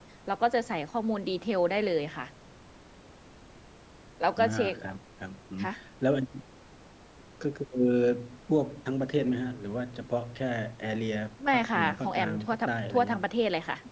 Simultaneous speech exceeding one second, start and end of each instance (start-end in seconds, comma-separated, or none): 11.5-13.2